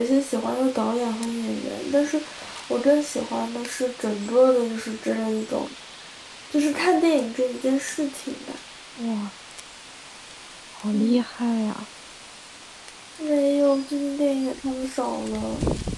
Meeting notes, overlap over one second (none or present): none